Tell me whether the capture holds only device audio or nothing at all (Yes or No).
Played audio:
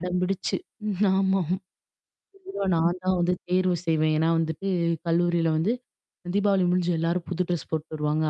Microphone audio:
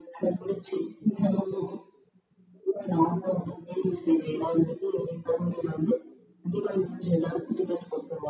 Yes